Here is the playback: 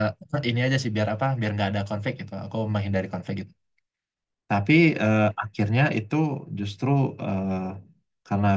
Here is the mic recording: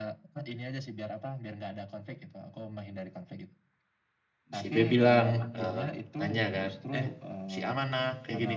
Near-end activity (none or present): present